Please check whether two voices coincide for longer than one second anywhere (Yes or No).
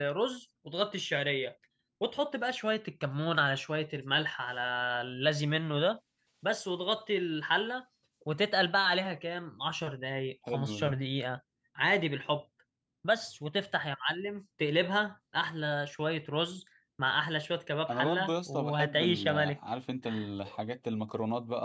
Yes